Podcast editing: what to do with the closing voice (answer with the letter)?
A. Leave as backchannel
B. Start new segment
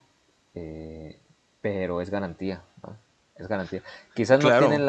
A